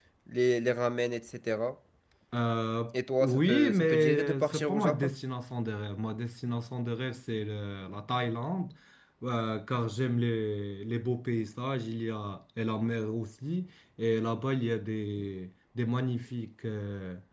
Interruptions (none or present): present